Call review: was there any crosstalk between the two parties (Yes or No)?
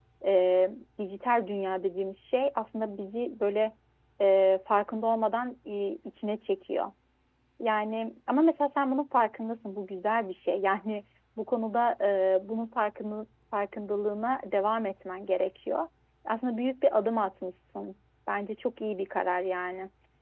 No